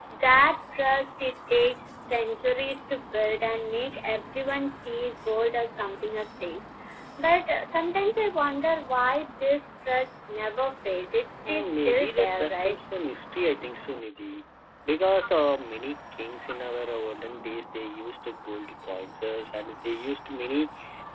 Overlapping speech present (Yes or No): Yes